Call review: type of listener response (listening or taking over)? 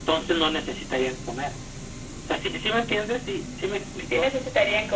taking over